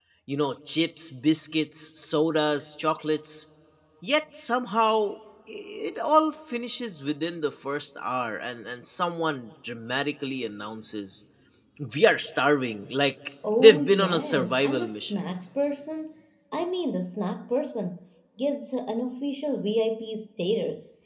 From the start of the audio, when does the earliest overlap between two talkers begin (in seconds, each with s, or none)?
13.4 s